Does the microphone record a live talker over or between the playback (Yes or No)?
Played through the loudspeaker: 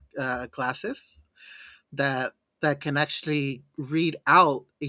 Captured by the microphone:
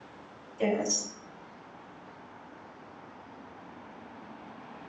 Yes